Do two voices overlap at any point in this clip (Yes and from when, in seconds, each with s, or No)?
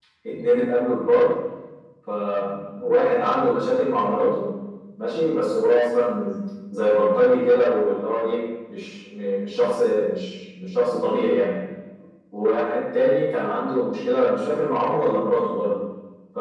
No